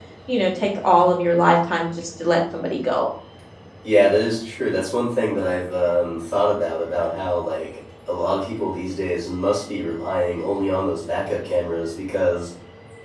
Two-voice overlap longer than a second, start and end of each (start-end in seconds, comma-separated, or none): none